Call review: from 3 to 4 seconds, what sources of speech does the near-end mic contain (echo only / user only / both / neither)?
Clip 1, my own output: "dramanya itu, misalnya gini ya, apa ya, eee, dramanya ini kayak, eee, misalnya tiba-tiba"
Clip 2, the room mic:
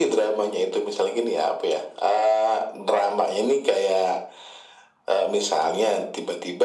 echo only